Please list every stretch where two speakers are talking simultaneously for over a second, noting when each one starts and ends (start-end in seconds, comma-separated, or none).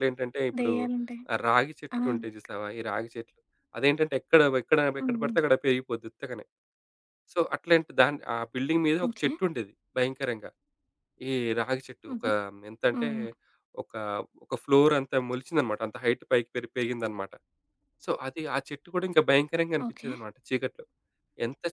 none